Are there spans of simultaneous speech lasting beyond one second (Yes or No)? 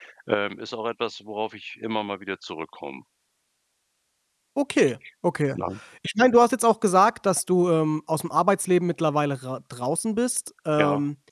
No